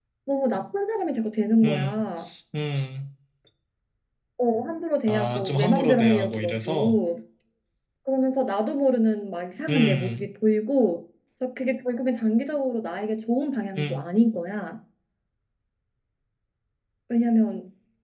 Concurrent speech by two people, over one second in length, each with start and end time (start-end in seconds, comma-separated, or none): 5.1-6.9